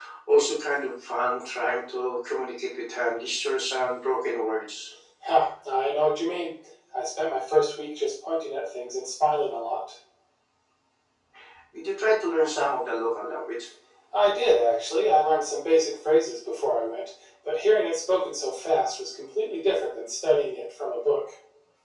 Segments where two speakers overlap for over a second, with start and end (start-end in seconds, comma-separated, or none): none